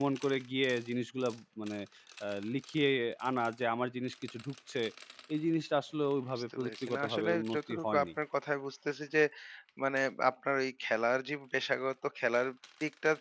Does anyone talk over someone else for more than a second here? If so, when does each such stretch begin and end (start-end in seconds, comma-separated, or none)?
6.6-8.0